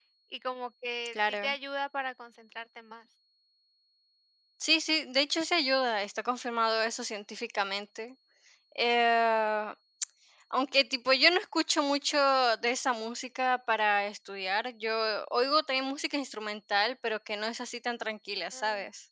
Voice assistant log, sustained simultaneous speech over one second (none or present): none